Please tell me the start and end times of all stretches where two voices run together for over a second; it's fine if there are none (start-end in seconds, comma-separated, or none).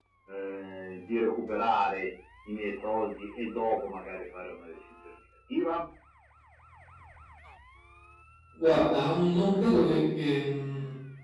none